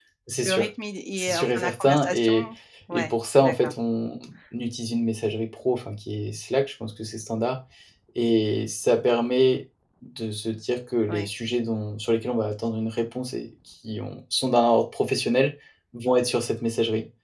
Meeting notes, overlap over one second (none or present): present